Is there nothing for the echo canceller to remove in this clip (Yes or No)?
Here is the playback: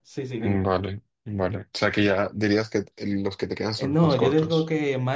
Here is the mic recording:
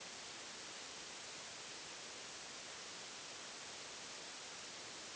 Yes